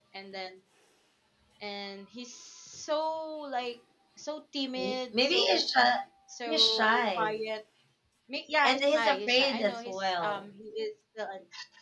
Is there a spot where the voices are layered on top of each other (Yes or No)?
Yes